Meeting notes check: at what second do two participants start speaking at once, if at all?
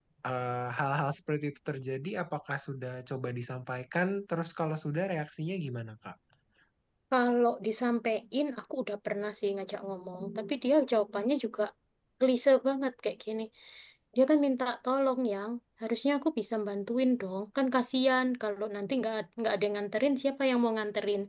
none

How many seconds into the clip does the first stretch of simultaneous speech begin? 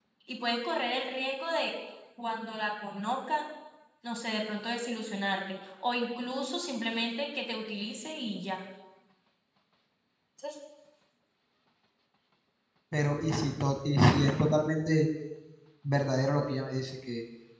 none

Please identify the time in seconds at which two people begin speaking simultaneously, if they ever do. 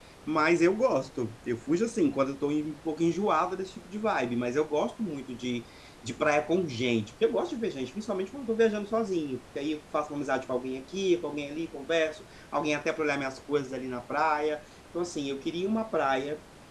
none

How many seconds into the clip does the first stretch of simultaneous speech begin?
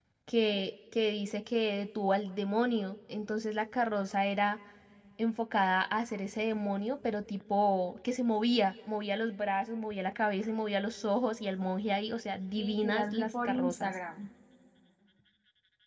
12.6 s

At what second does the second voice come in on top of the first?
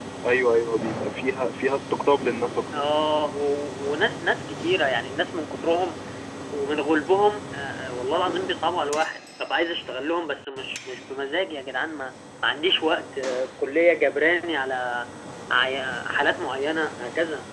none

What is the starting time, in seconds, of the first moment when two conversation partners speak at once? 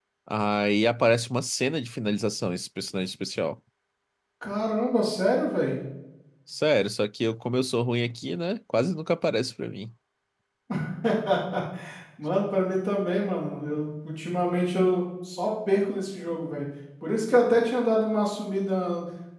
none

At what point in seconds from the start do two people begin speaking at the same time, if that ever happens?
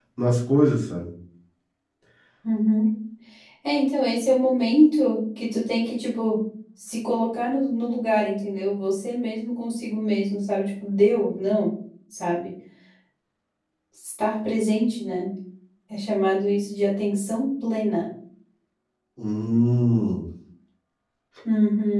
none

